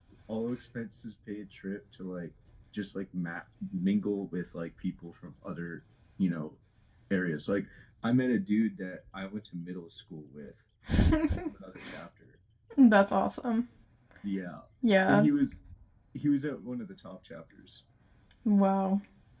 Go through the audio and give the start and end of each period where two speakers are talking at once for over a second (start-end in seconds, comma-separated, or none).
none